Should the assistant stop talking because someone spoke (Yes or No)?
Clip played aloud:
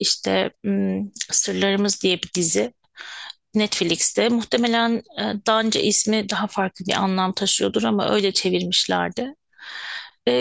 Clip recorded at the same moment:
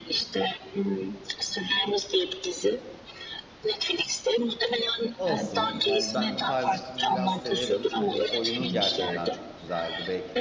Yes